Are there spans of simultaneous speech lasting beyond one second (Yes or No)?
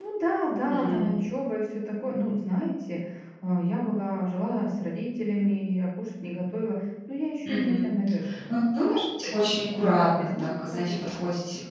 Yes